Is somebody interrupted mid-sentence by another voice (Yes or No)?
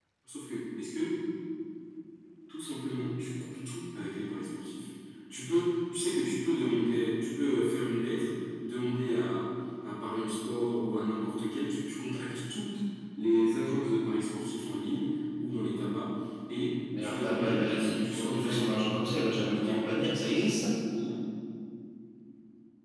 Yes